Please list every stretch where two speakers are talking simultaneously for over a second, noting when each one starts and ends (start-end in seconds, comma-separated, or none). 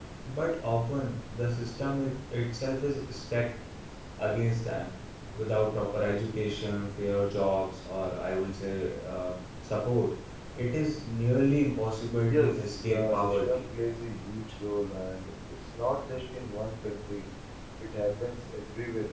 12.3-13.6